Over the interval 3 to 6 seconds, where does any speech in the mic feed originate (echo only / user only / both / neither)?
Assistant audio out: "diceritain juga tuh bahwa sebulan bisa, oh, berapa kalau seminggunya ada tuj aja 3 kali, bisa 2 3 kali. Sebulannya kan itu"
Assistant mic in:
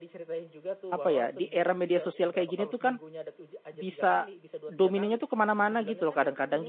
both